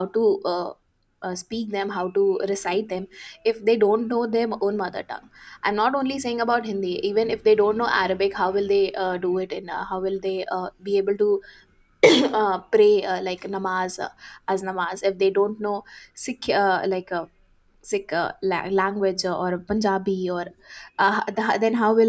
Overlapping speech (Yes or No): No